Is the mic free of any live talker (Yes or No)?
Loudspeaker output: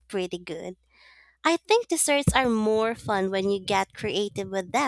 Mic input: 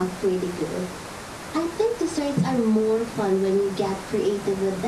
Yes